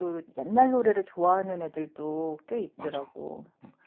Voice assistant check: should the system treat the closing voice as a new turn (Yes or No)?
Yes